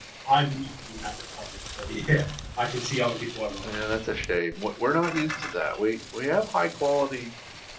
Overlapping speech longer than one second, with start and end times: none

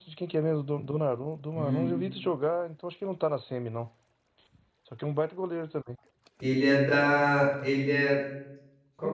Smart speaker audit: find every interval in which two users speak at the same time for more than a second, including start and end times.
none

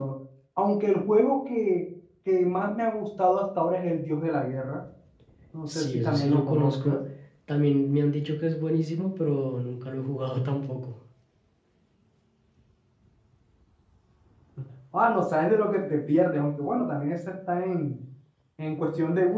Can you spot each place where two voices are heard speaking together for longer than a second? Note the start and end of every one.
5.8-7.0

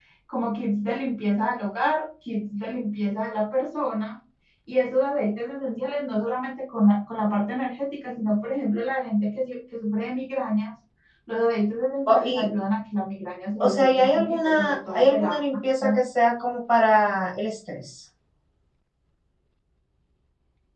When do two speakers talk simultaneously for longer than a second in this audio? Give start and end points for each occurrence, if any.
13.6-15.3

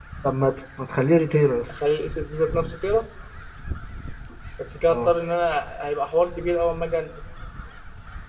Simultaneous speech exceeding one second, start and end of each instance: none

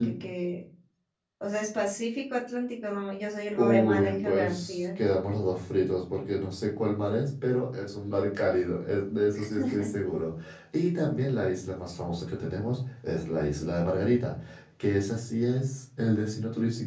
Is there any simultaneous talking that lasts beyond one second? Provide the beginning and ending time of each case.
3.5-4.8

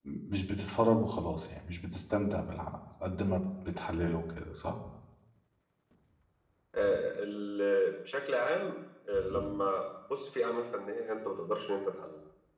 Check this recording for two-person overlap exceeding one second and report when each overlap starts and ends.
none

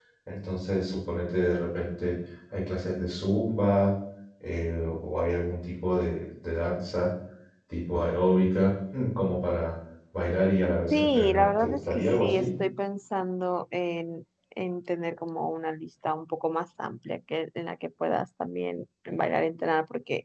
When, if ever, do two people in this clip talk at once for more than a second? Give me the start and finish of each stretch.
10.9-12.5

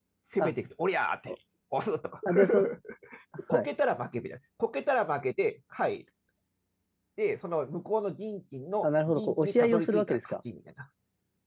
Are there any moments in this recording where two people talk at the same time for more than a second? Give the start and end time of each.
8.8-10.3

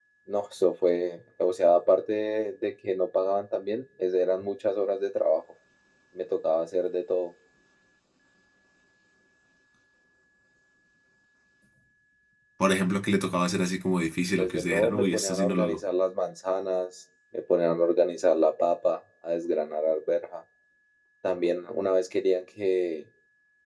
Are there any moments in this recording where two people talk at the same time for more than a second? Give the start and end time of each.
14.4-15.8

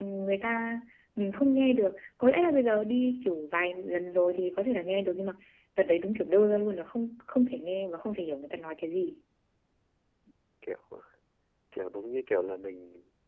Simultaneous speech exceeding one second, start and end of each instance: none

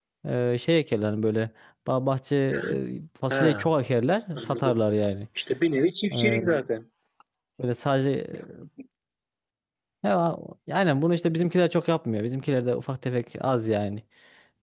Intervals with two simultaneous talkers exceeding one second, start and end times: none

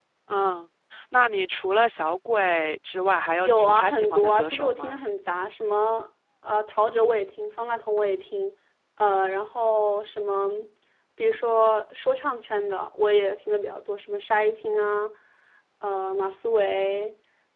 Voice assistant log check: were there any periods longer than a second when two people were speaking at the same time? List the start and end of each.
3.4-5.0

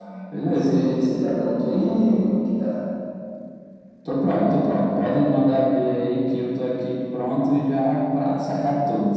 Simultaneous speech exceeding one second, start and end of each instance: none

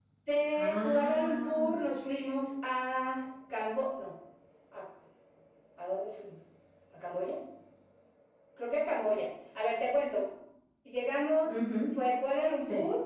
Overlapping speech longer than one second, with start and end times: 0.5-1.9

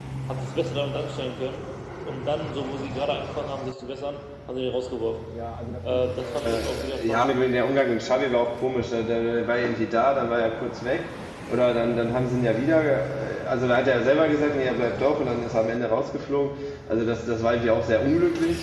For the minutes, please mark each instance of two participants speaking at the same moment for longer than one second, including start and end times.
5.9-7.3

